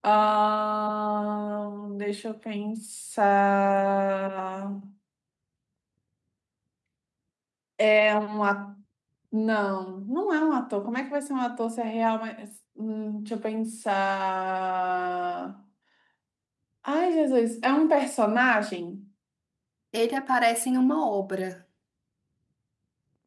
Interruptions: none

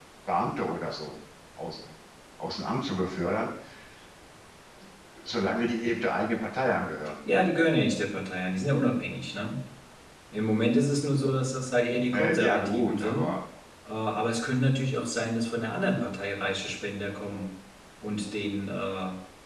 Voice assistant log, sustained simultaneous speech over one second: present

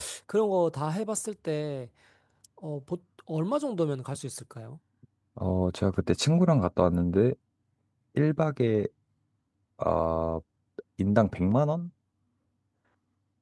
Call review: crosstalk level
none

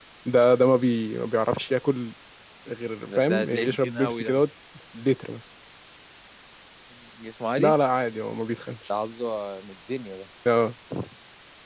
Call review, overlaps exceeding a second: present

